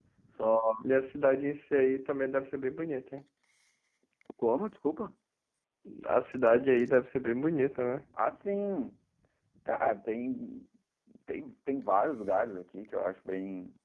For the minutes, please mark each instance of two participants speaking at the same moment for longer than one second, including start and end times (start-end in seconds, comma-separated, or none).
none